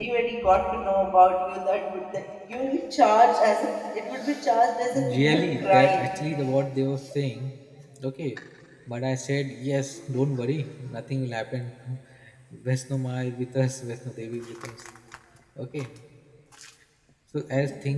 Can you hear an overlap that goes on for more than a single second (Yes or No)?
Yes